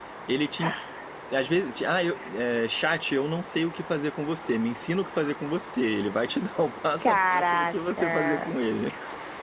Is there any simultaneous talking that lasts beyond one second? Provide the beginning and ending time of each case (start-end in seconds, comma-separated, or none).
7.0-8.5